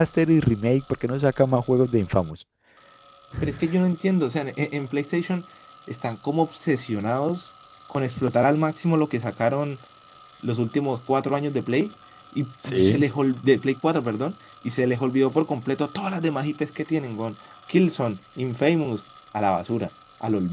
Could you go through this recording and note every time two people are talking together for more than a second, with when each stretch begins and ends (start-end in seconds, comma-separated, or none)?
none